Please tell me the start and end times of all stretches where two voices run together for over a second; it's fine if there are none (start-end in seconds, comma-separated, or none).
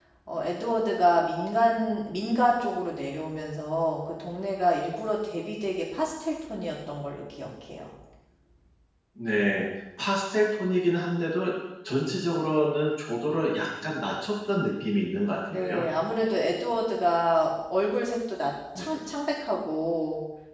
none